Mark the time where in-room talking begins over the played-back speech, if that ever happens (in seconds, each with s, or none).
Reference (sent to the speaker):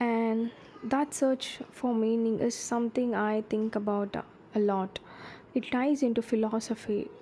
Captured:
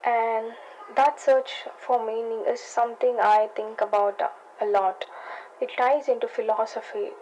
none